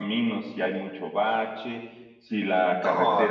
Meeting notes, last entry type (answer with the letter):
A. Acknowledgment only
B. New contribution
A